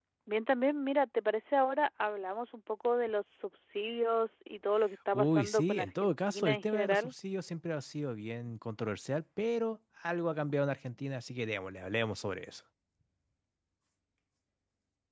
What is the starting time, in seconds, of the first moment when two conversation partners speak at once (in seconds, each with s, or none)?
5.1 s